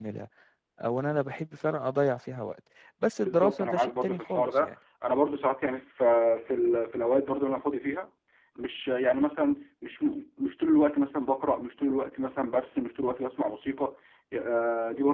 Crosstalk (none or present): present